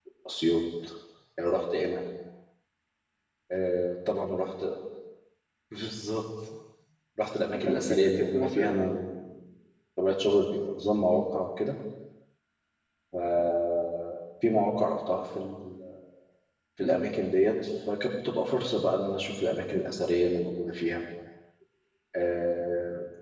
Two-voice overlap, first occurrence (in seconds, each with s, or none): 7.5 s